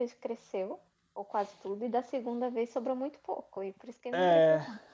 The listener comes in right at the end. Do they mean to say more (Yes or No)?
Yes